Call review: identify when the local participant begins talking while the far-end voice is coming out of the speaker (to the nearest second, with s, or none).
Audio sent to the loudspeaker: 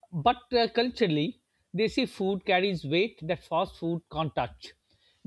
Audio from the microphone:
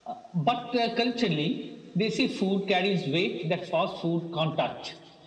none